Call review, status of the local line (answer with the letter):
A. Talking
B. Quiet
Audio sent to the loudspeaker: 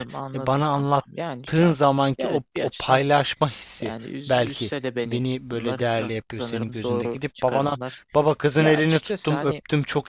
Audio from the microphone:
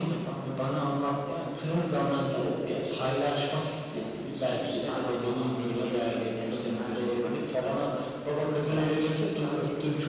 A